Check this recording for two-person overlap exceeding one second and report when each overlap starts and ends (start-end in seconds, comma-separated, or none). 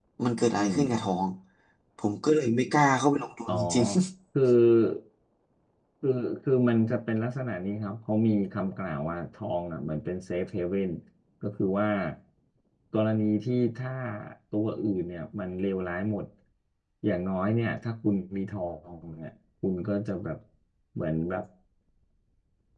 none